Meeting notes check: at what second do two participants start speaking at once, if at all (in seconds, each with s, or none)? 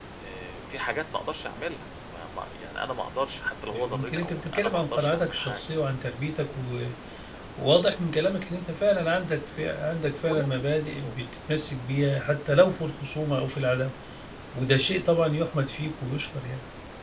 3.7 s